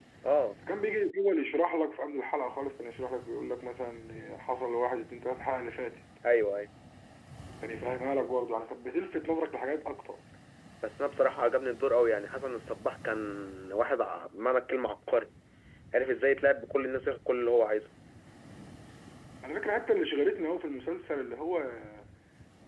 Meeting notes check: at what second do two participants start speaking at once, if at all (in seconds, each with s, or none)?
none